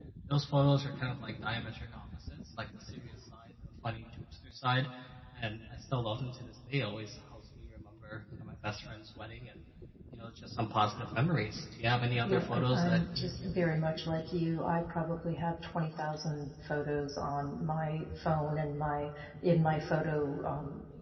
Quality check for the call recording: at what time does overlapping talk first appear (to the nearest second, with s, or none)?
12 s